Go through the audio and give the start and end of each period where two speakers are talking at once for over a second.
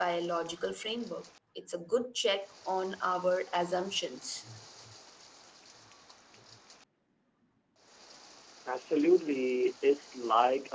none

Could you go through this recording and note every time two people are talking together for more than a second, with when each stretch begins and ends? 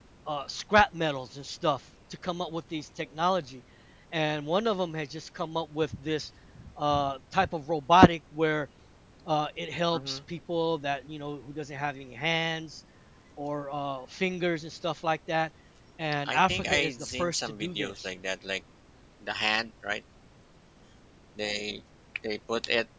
16.2-18.1

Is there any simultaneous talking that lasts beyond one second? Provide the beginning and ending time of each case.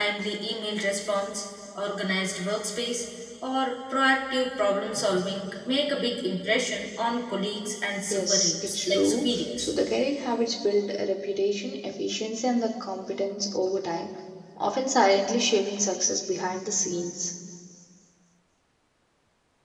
8.1-9.7

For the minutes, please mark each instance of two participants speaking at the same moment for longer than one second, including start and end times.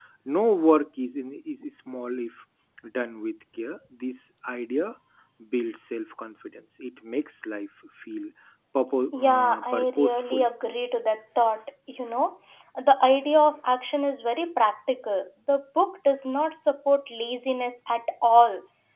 9.1-10.4

